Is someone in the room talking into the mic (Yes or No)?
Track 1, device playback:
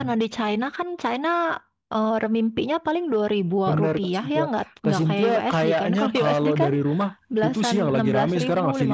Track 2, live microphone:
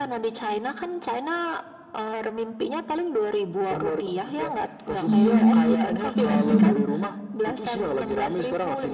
Yes